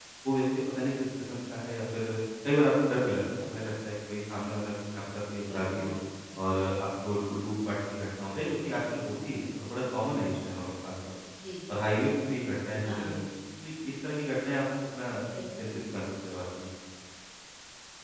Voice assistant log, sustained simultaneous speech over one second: none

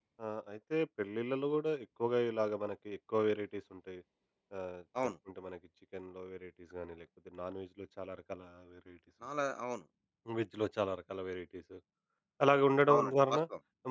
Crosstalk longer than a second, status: none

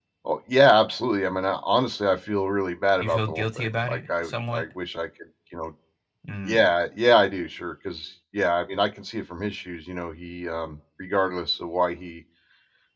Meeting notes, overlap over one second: present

